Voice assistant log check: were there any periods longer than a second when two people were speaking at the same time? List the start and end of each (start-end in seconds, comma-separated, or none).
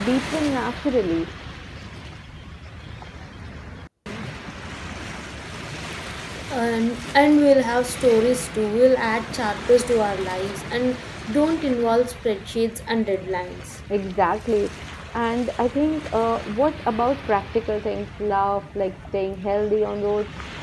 none